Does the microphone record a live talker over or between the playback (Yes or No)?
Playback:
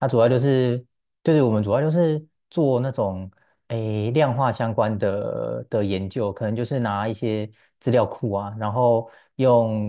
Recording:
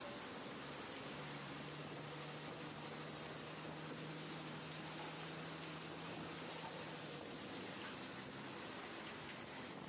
No